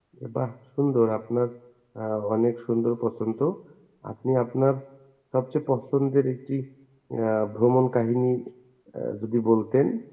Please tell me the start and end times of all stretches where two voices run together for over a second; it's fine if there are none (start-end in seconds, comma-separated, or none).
none